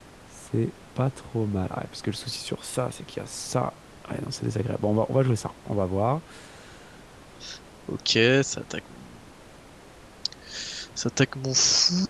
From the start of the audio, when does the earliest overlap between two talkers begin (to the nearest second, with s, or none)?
none